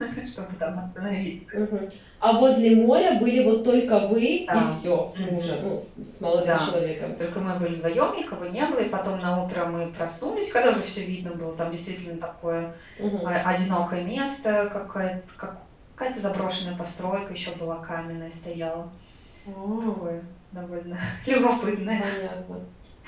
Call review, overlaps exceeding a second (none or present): none